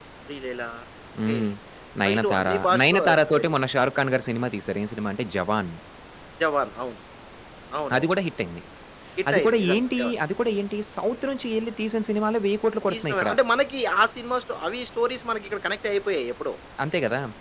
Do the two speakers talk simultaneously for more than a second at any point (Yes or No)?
Yes